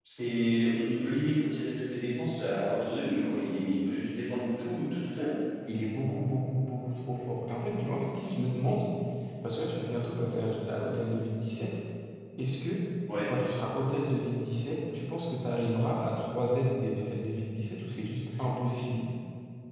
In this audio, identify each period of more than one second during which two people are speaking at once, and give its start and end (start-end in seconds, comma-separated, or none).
none